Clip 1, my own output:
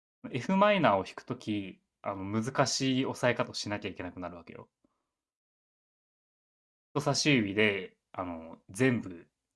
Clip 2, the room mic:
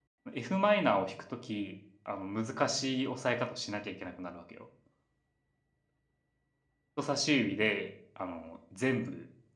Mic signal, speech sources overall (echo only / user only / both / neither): echo only